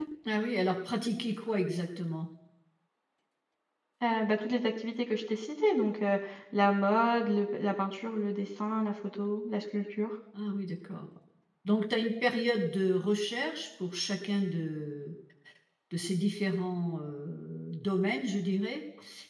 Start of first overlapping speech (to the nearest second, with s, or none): none